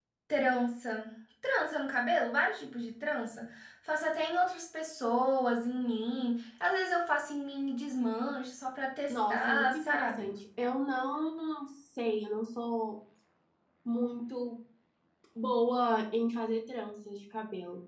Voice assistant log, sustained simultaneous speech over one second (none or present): present